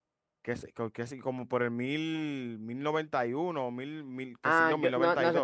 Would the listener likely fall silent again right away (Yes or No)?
No